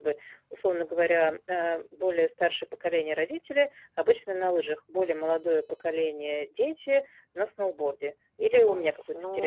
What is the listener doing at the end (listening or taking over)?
taking over